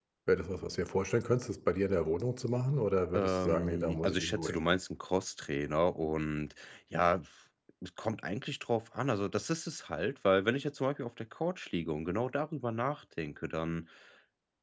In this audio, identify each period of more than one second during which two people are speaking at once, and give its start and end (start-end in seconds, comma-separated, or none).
3.1-4.7